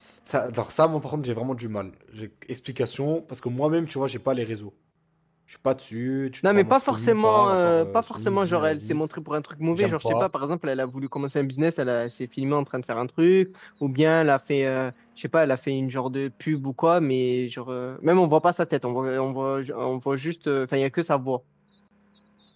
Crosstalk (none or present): present